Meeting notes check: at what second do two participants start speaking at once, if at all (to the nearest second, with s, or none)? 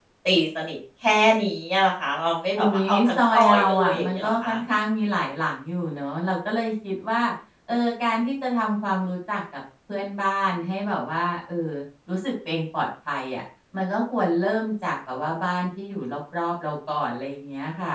3 s